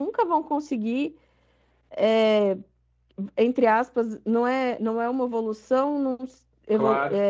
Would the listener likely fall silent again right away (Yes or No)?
Yes